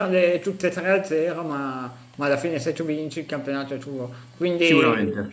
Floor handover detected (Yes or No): No